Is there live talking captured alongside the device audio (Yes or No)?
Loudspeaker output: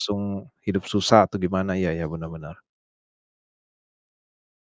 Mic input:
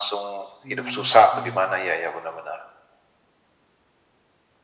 Yes